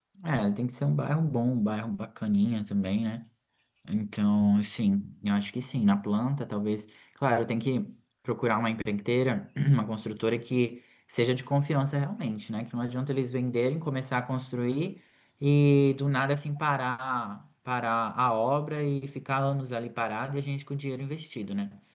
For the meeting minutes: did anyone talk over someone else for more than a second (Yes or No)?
No